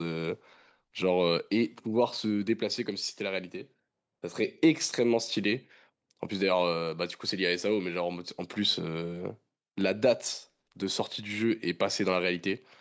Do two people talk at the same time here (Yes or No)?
No